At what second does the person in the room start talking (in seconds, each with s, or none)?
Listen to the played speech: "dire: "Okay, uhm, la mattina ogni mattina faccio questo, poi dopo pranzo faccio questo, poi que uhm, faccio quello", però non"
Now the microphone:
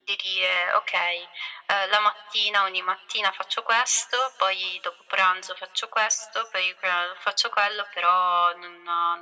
none